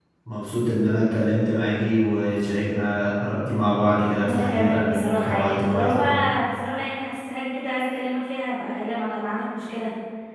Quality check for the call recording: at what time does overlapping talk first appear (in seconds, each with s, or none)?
4.2 s